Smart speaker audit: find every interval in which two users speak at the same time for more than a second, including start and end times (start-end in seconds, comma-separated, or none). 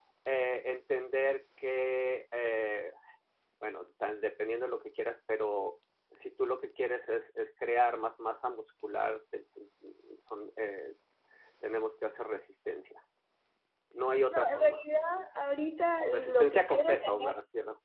16.0-17.3